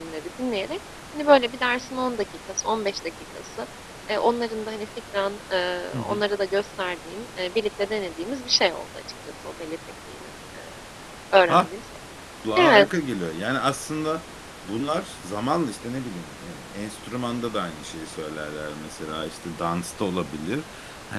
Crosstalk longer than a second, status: none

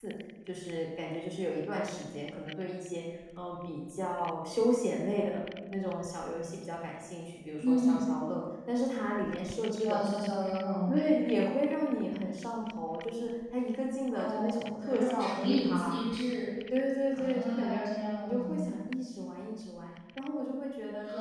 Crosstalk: present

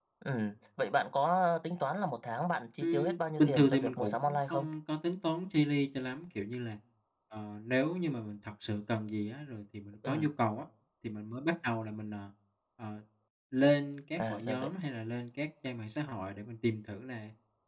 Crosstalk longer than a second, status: present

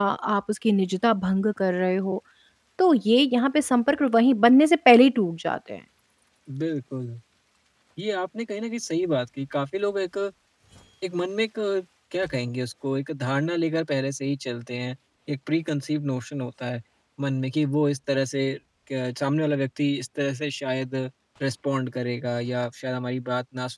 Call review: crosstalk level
none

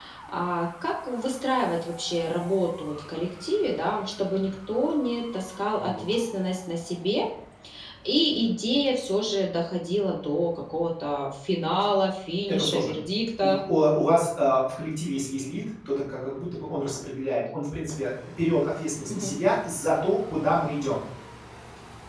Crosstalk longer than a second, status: none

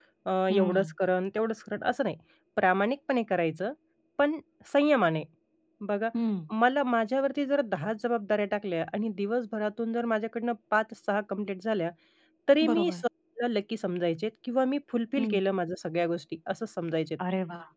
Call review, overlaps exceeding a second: none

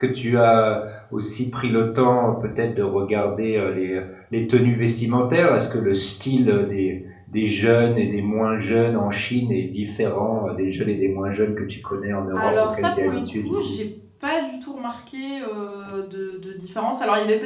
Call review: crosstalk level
present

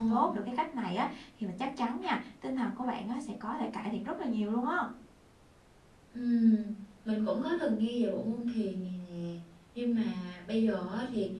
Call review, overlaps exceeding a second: none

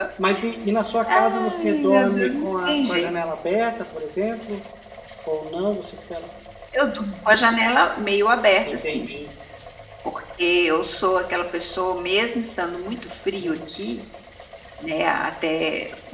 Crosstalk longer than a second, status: present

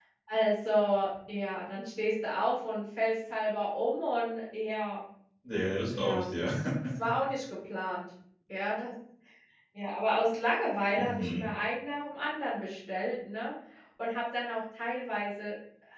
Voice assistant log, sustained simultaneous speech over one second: none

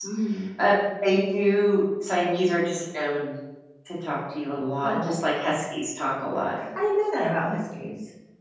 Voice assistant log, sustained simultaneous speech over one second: none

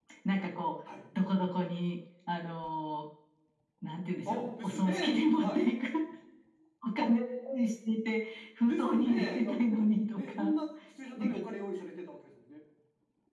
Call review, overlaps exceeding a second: present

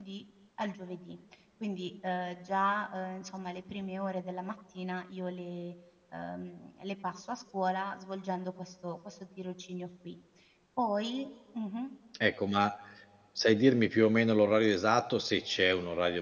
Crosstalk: none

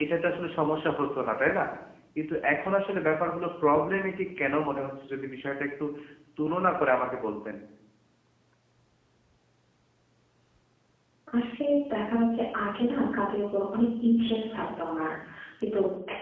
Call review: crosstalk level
none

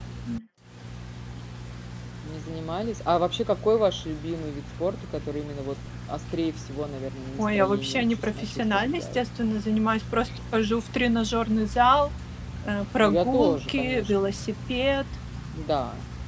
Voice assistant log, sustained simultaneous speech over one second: present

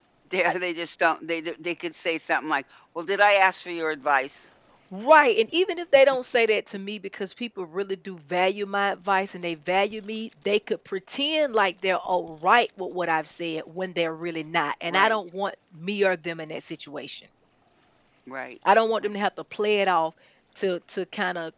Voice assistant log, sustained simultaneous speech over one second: none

